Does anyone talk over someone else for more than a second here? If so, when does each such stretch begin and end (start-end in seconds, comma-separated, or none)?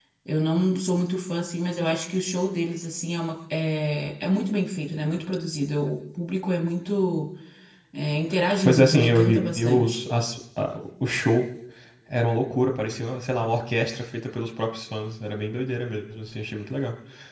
8.7-10.0